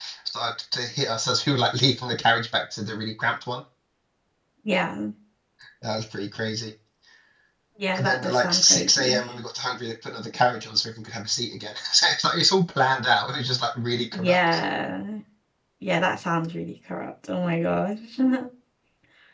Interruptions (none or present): present